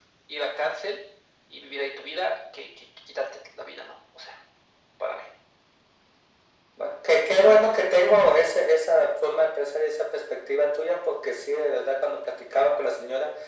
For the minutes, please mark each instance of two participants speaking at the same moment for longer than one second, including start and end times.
none

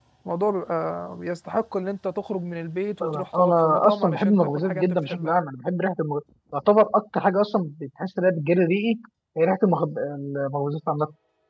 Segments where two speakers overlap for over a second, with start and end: 3.0-5.3

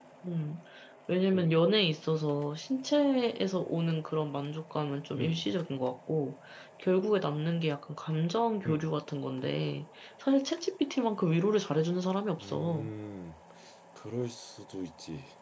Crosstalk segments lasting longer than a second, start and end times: none

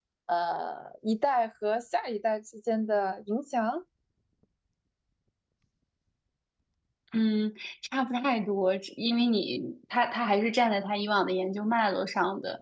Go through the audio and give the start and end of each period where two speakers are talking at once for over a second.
none

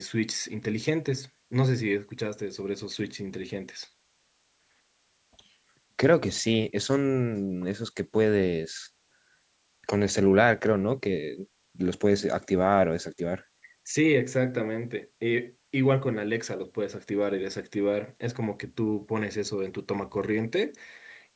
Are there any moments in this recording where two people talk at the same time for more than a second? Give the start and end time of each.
none

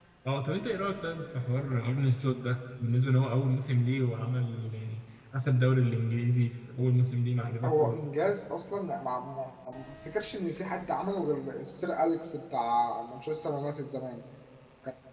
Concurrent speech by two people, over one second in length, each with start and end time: none

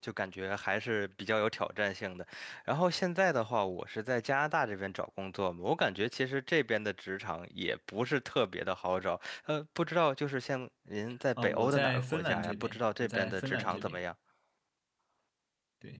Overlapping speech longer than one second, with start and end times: 11.4-14.0

